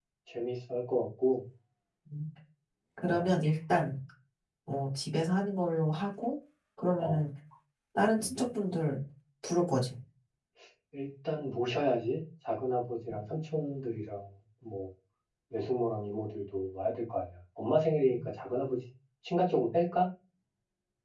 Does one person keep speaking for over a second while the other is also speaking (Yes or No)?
No